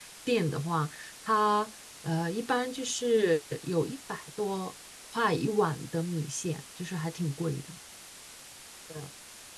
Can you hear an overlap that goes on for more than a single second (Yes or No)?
No